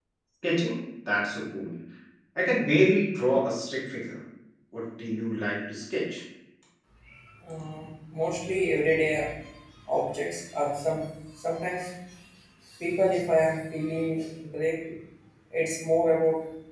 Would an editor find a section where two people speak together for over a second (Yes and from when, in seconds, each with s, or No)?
No